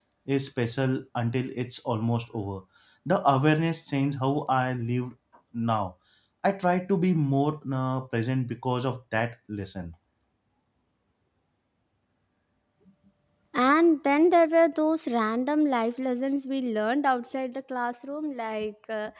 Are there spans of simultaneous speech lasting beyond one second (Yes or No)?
No